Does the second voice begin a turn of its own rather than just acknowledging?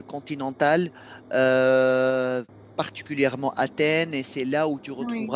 No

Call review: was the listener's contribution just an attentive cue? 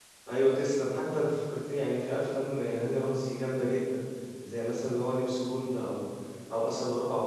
Yes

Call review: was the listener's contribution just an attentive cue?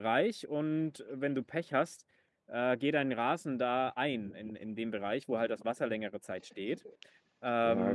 No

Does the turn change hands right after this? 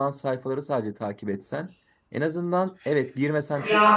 No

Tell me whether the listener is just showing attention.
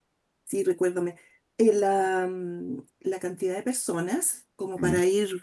Yes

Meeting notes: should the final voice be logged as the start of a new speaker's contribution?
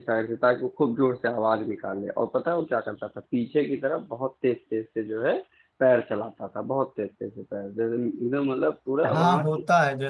Yes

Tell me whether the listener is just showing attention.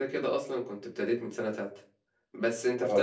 Yes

